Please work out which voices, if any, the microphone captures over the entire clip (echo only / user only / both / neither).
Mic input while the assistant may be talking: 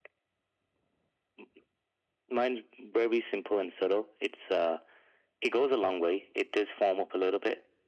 echo only